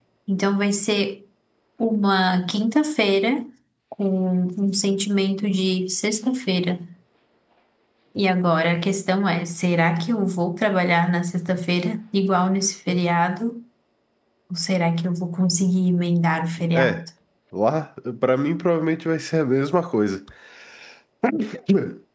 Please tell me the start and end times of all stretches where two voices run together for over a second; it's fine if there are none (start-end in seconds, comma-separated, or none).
none